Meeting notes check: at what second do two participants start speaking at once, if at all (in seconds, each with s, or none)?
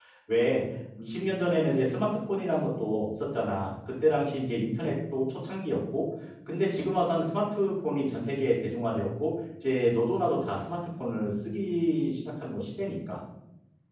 none